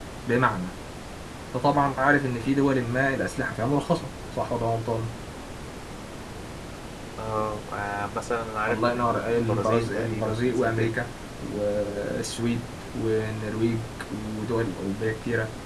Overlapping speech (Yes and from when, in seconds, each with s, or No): Yes, from 8.7 s